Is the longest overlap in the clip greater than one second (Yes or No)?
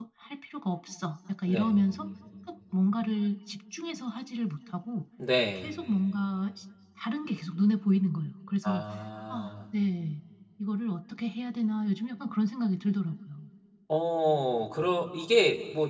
No